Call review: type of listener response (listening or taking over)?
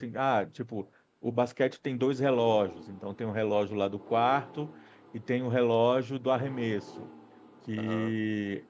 listening